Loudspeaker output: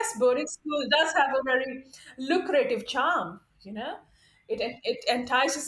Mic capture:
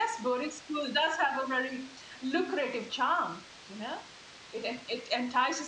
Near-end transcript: none

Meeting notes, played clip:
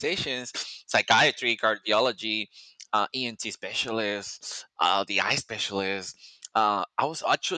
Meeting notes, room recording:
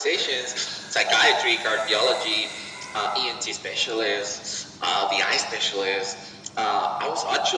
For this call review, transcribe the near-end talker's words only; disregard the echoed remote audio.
none

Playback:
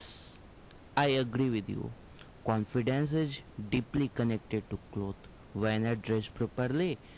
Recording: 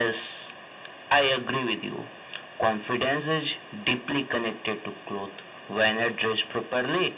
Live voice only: none

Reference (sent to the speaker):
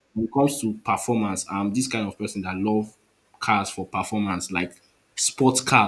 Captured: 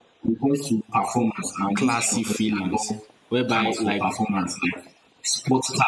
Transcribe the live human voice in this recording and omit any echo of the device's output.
classy feelings, whereby like

